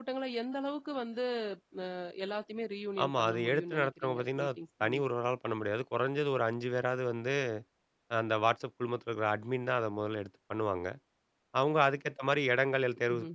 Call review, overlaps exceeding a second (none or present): present